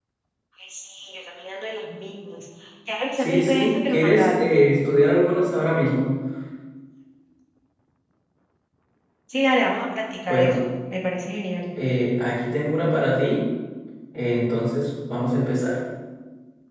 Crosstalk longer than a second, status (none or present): present